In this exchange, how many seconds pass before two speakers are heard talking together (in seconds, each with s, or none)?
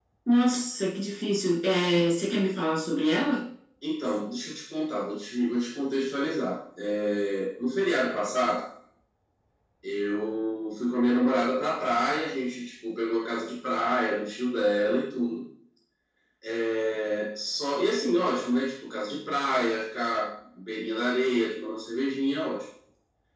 none